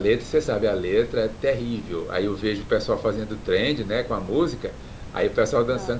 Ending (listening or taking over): listening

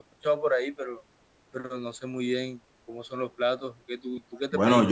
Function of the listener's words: taking over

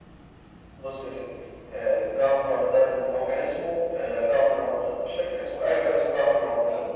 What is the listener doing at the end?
listening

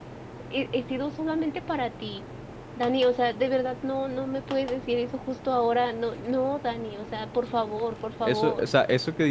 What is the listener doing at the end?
taking over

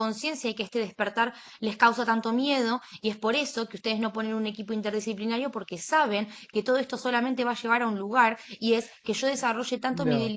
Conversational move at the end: listening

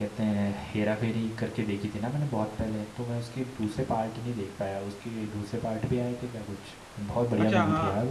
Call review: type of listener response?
taking over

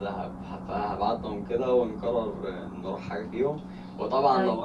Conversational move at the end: listening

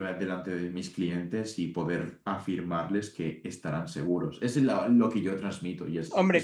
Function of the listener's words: taking over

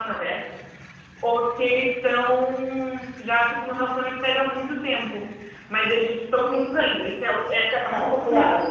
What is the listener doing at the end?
taking over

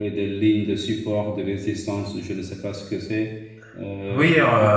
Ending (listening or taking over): taking over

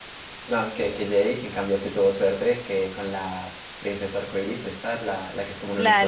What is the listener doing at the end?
taking over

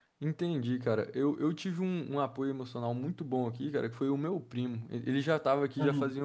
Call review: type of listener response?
listening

